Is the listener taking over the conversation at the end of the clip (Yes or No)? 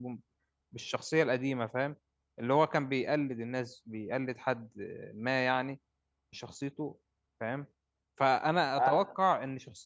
No